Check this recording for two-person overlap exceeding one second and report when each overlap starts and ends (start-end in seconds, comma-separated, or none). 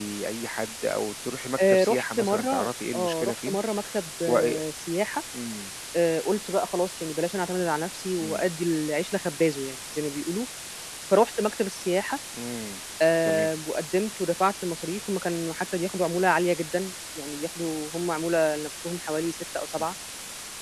1.6-3.6